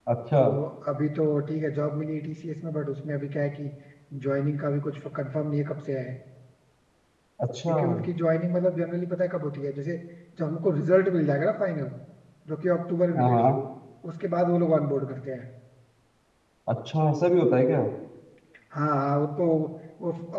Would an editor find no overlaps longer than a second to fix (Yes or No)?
Yes